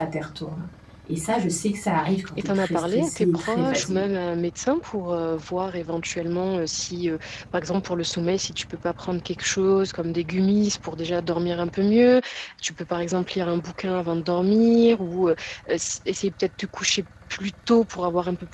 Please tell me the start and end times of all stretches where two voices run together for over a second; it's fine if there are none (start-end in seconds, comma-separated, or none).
2.4-4.0